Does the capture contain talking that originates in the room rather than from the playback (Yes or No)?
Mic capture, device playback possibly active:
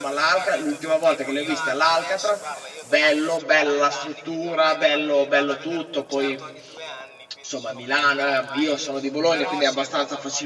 Yes